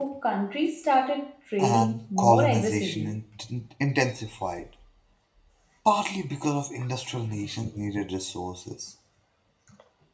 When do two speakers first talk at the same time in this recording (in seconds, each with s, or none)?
1.6 s